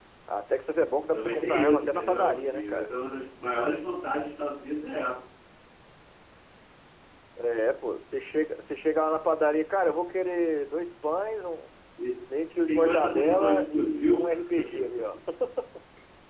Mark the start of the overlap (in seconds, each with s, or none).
1.1 s